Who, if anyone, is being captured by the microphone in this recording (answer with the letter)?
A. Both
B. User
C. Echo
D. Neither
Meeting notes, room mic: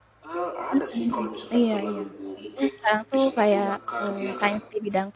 A